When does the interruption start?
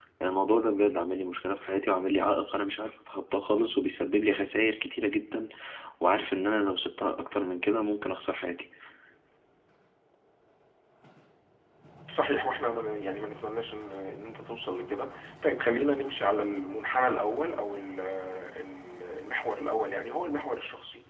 none

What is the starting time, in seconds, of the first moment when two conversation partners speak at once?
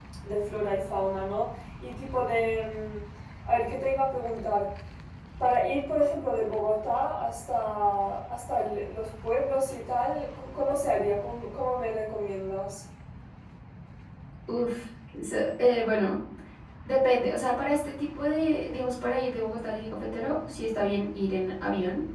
none

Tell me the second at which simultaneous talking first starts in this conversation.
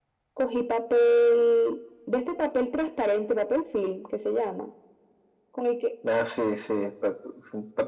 none

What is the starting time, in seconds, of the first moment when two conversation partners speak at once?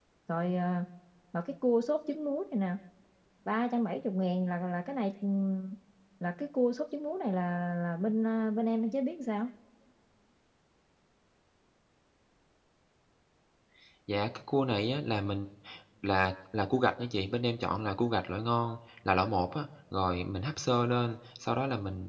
none

